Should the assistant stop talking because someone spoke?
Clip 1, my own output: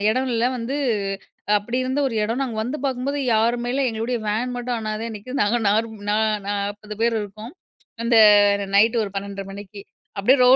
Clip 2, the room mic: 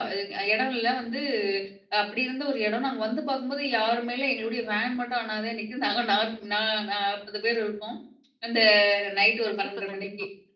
Yes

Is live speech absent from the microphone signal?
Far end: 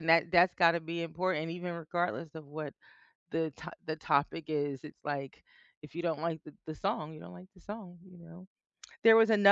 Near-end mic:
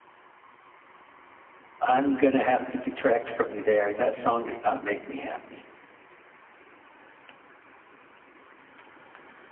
No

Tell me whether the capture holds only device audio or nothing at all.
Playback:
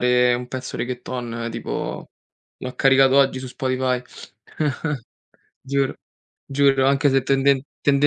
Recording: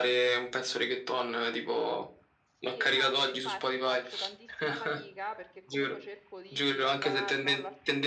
No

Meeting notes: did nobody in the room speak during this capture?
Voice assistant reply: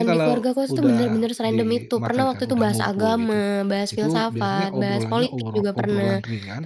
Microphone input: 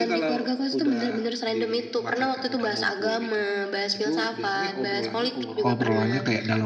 No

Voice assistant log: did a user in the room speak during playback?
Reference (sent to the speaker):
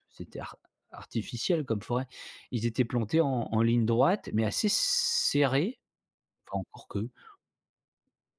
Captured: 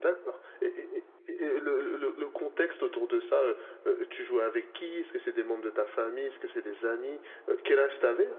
Yes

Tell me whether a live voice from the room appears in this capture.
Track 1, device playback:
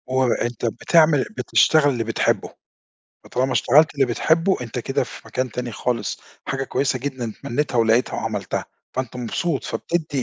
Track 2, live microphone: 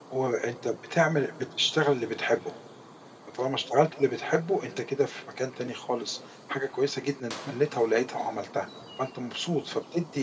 No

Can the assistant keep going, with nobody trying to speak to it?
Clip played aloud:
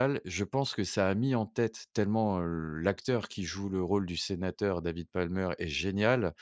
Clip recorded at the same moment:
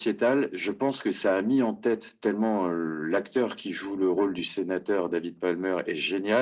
Yes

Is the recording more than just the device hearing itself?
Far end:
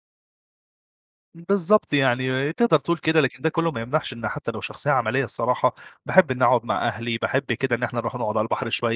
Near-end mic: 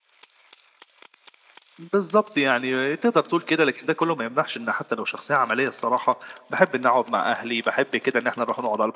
No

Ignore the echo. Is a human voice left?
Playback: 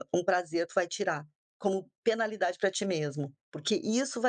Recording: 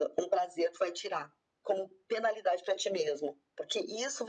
No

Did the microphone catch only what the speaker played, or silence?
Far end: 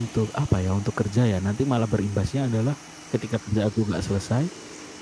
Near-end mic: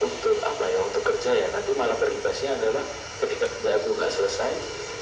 Yes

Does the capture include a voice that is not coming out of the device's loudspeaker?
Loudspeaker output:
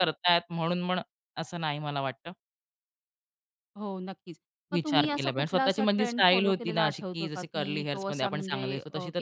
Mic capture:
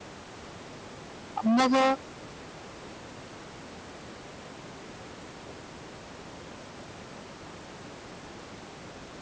Yes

